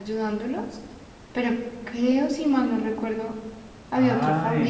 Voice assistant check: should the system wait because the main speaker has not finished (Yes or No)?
No